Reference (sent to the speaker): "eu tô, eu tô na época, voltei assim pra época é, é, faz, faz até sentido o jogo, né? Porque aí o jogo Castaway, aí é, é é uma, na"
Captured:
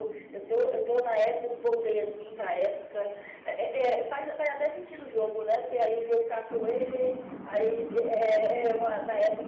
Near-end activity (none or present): none